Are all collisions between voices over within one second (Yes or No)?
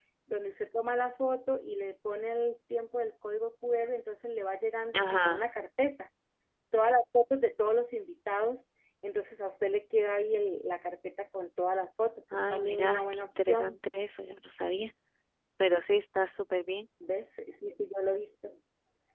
No